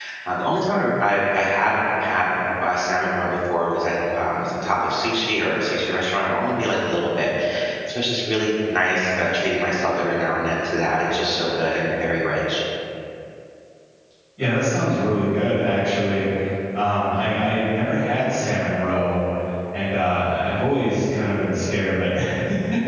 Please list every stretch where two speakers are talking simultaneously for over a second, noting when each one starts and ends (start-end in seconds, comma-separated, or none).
none